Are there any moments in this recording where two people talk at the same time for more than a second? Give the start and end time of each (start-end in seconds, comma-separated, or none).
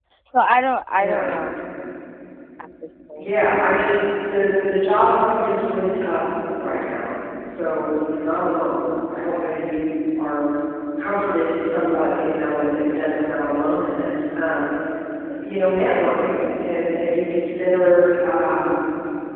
none